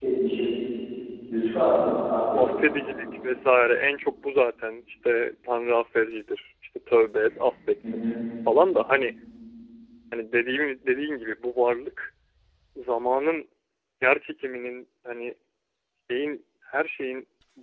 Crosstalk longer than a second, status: none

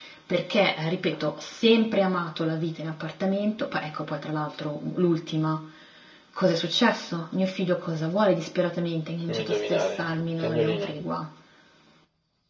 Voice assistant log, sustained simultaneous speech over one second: present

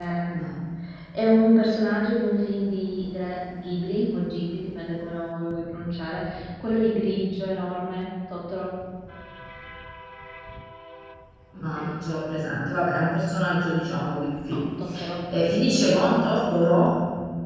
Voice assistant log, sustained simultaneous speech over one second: none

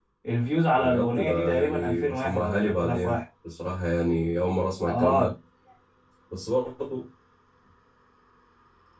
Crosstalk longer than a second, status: present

